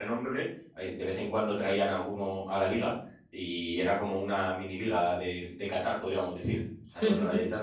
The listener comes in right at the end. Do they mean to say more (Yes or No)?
Yes